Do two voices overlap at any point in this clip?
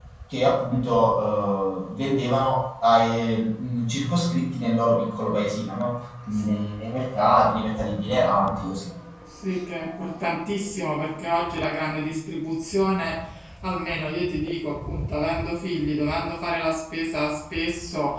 No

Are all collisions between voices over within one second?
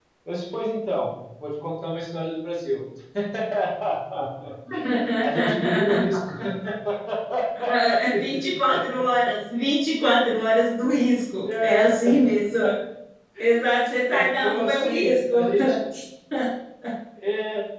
No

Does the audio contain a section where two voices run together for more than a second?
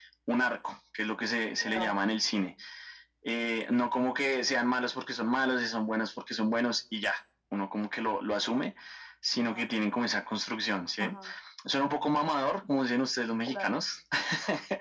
No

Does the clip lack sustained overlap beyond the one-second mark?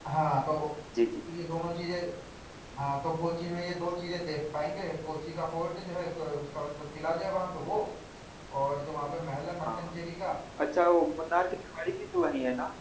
Yes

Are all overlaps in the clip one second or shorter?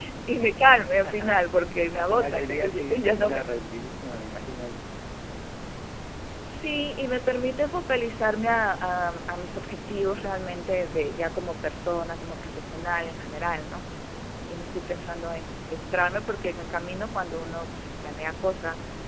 No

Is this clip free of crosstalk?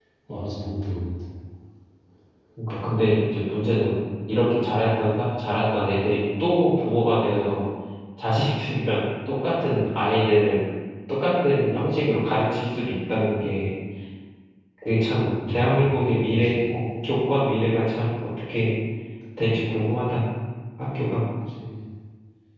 No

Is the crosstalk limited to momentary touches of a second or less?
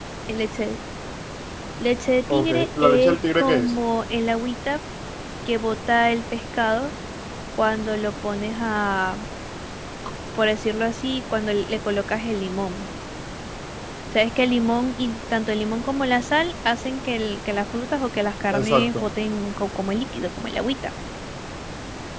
No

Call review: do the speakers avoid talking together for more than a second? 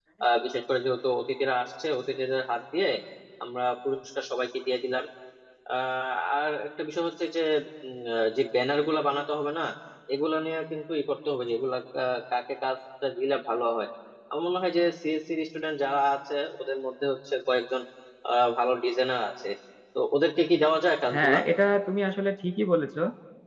Yes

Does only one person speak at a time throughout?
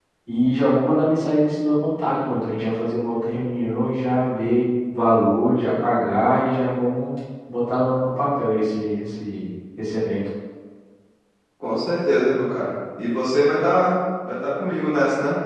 Yes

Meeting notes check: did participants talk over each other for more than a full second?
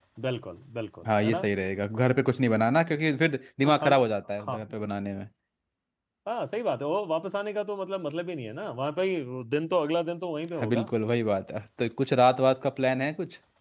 No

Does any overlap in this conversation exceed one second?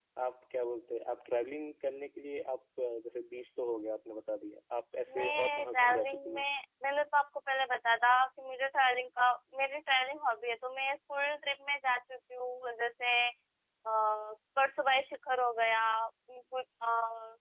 Yes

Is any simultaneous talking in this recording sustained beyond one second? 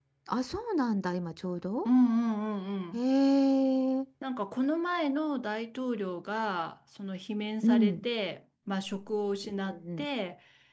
No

